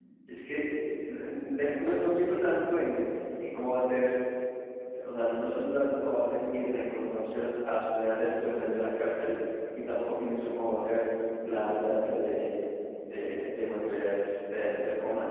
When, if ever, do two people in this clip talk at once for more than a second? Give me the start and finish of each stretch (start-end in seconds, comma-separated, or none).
none